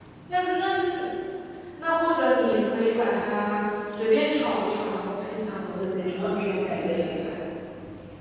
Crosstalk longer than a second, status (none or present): present